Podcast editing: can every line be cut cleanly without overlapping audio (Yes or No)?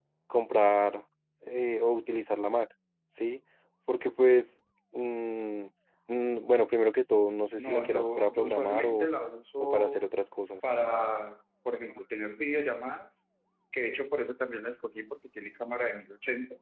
No